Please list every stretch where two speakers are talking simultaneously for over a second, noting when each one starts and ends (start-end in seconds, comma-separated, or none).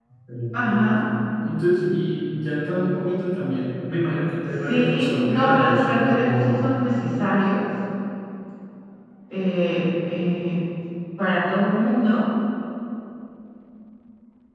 4.7-6.7